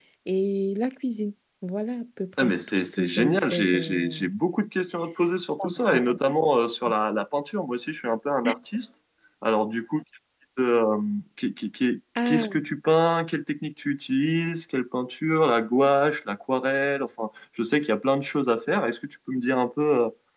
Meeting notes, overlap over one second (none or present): present